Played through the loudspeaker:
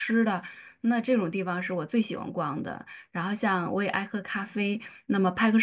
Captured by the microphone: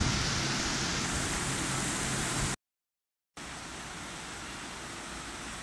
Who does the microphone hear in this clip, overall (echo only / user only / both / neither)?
neither